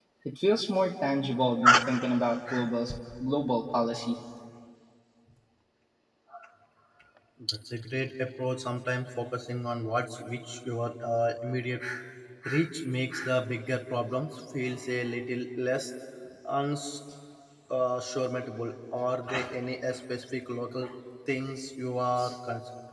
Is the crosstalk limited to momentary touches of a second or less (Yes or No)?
Yes